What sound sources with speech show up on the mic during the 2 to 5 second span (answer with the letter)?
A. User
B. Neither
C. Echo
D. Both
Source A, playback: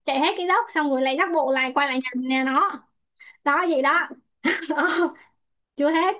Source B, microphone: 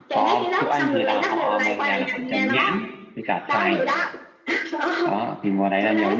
D